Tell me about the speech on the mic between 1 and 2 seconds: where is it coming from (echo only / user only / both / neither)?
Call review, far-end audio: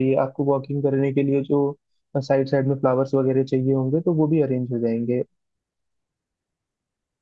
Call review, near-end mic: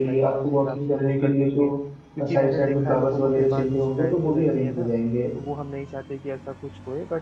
both